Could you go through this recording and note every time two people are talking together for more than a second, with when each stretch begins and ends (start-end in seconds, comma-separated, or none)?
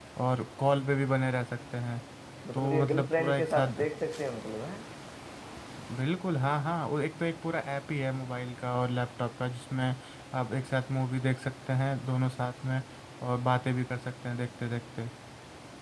2.5-3.8